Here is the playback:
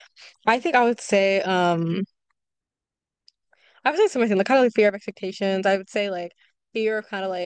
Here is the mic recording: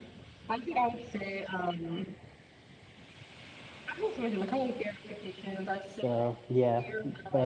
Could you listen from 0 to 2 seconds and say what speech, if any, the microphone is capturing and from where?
echo only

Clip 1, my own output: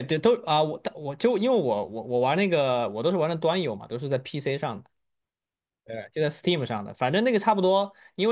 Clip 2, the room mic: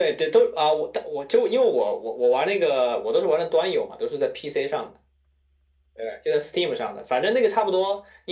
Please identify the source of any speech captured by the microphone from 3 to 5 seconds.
echo only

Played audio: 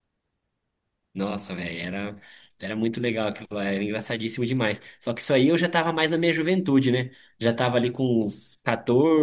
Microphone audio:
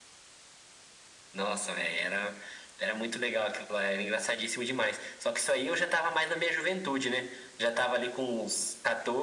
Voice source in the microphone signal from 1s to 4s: echo only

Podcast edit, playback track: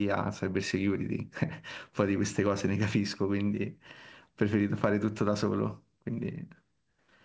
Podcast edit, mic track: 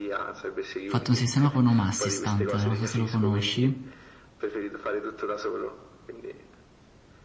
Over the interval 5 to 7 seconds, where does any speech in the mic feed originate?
echo only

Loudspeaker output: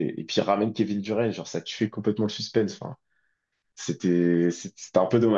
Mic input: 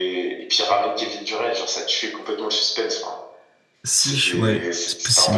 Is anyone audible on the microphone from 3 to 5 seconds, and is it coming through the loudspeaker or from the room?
both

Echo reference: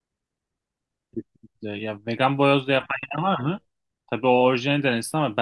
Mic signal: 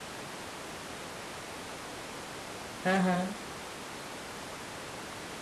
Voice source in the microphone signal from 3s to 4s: user only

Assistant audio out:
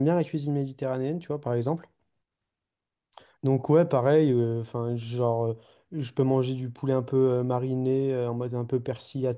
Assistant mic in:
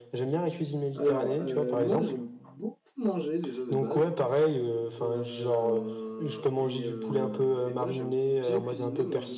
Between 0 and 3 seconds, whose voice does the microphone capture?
both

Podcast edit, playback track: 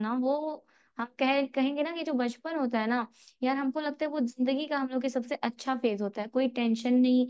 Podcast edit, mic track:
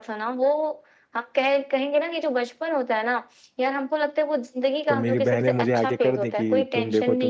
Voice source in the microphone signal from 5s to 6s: both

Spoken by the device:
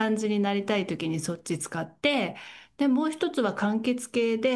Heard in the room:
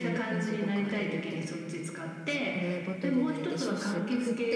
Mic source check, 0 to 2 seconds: both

